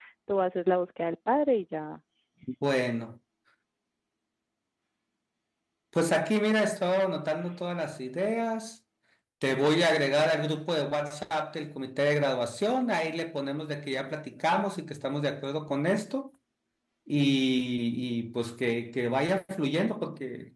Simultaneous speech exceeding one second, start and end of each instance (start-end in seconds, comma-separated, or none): none